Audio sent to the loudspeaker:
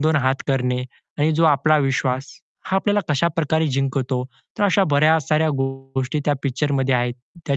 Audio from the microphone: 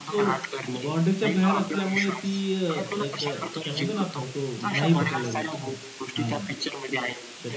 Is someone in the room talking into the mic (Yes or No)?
Yes